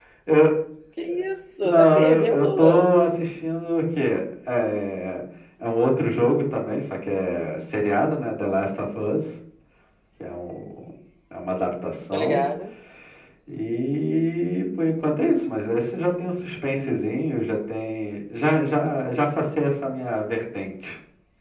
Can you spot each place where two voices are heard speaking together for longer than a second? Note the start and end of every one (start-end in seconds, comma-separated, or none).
1.6-2.8